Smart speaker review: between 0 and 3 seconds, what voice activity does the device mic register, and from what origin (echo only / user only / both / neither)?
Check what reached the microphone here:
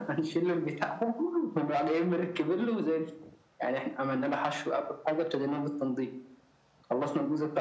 echo only